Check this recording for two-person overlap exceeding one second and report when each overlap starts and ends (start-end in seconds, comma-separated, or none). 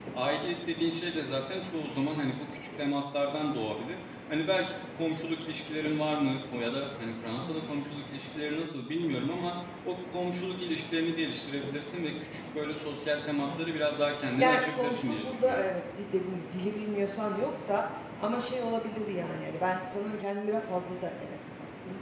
14.4-15.7